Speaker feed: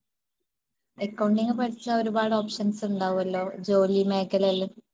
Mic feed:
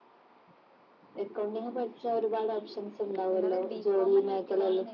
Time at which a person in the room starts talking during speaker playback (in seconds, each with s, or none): 3.3 s